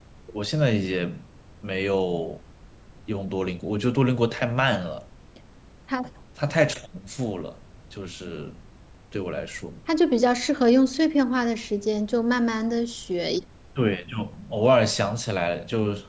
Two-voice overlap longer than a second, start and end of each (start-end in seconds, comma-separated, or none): none